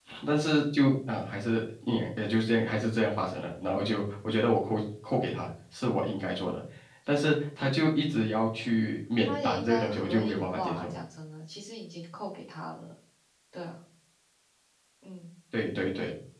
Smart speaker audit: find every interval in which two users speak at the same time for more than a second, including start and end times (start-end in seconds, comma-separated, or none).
9.3-10.9